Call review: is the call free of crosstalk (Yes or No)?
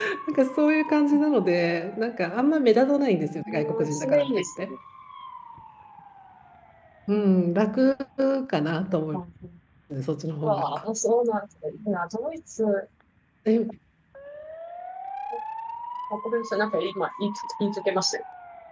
No